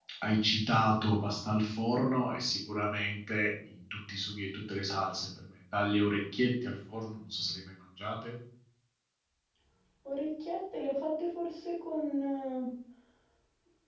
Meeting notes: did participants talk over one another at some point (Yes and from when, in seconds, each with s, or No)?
No